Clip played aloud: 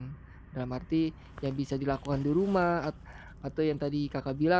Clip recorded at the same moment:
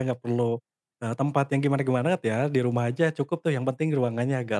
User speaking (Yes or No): Yes